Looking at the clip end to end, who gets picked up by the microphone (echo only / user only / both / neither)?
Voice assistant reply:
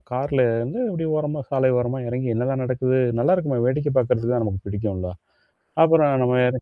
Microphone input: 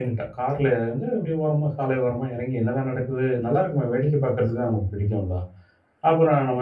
echo only